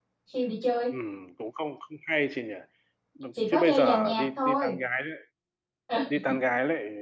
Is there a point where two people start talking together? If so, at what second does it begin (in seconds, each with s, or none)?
3.5 s